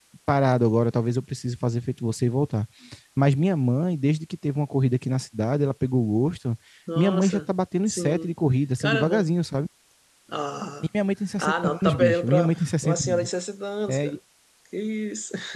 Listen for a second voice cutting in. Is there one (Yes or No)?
Yes